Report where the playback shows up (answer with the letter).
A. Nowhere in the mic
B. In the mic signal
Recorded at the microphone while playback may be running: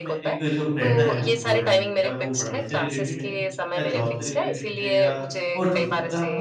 B